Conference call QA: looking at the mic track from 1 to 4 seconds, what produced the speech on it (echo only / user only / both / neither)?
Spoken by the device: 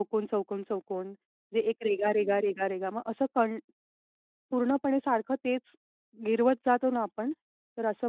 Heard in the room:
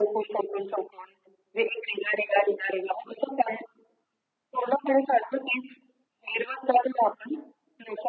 echo only